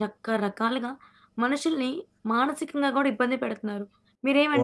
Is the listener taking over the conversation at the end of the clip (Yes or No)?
No